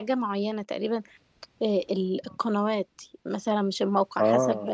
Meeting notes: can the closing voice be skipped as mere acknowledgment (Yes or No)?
Yes